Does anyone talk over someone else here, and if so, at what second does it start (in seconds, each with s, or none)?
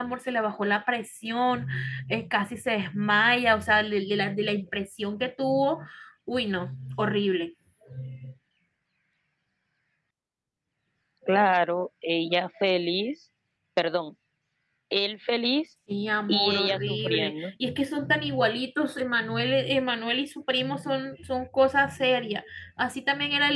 16.3 s